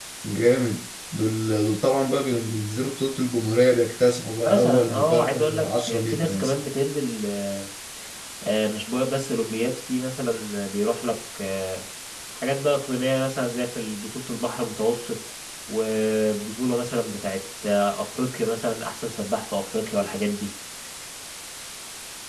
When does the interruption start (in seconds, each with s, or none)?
4.4 s